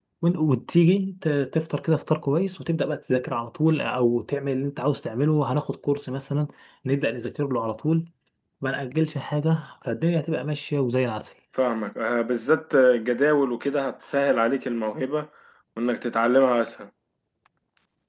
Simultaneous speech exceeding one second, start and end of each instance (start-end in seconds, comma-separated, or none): none